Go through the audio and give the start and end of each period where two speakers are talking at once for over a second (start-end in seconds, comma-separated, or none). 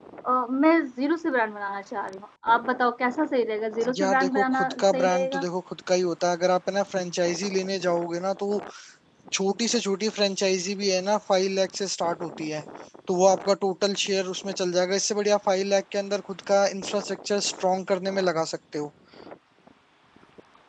4.0-5.4